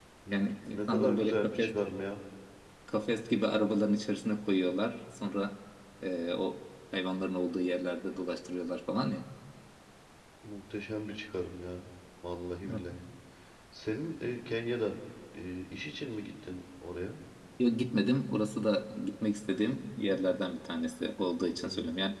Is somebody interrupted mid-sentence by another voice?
Yes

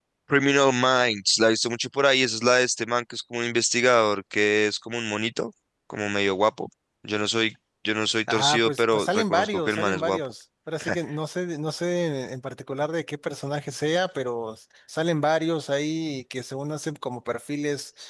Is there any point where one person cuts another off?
Yes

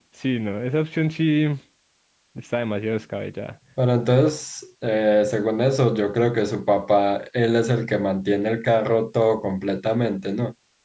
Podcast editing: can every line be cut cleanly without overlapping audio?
Yes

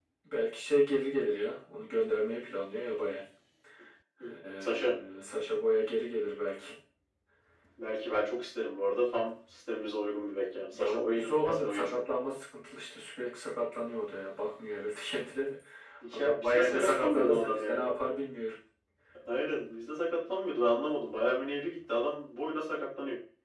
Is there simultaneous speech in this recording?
Yes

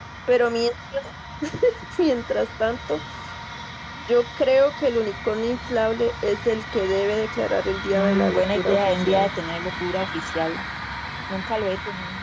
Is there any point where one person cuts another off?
Yes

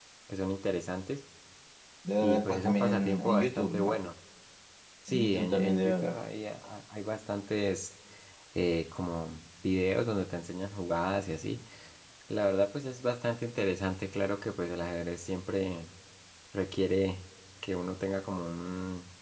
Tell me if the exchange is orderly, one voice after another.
No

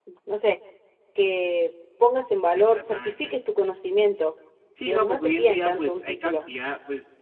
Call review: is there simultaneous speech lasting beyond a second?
Yes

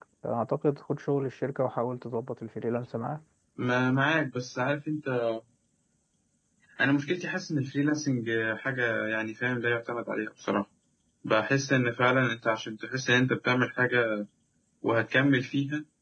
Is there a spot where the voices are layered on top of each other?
No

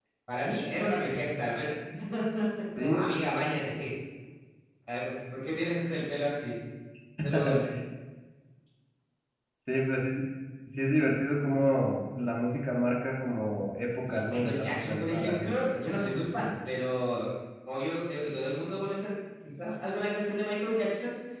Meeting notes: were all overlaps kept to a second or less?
No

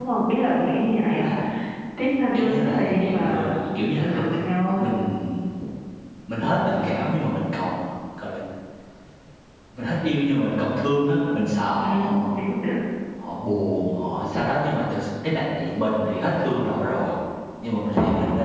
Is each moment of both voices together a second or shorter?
No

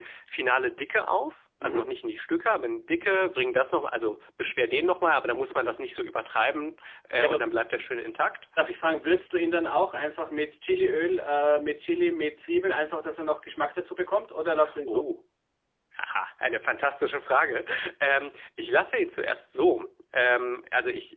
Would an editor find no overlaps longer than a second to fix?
Yes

